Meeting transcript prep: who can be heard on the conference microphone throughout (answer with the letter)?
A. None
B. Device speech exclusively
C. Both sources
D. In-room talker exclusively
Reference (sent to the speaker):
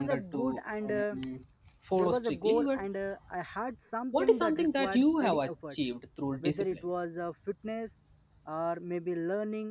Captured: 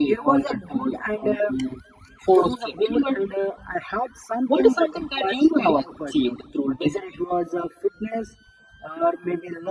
B